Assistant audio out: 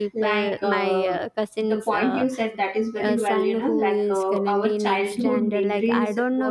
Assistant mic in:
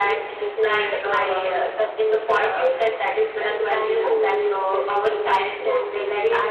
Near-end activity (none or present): none